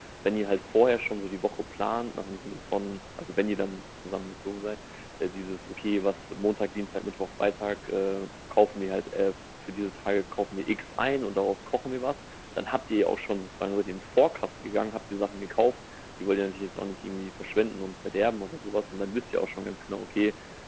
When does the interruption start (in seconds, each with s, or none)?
none